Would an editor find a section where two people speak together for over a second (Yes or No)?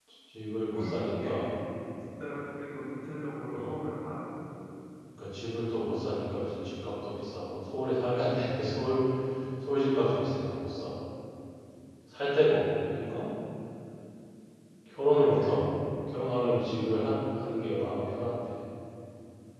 No